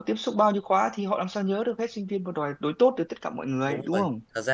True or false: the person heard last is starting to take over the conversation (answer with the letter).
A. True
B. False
A